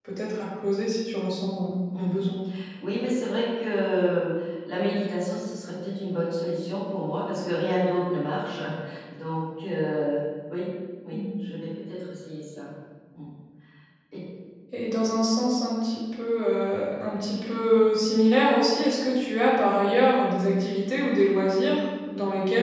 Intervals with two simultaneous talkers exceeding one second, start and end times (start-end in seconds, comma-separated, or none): none